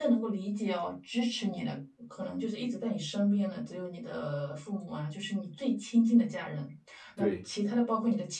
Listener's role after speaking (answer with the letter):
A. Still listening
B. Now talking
A